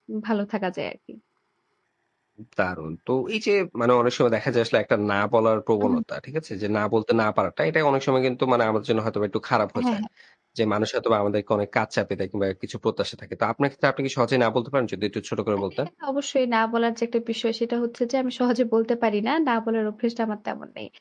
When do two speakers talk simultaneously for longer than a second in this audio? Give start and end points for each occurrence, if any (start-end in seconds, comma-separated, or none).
none